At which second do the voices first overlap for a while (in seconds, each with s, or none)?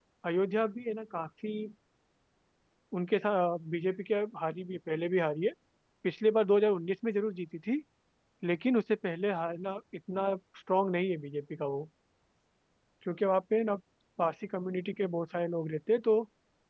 none